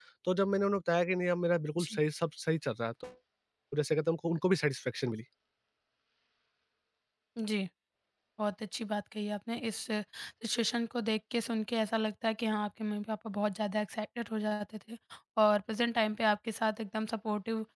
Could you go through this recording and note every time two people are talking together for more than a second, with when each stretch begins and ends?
none

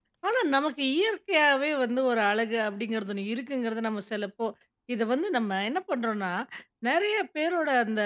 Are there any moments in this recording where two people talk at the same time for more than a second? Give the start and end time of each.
none

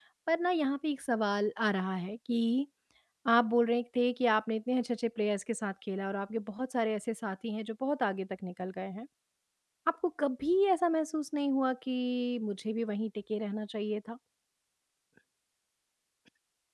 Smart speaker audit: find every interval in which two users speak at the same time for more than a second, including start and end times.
none

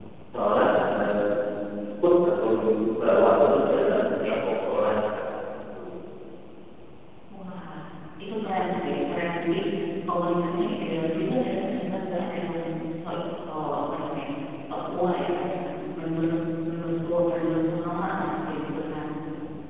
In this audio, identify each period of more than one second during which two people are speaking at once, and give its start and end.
none

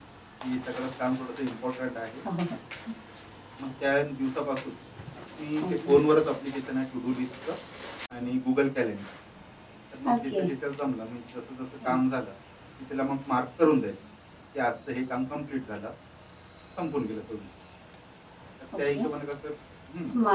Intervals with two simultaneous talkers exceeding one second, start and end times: none

